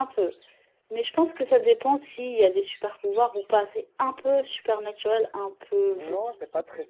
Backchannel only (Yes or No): No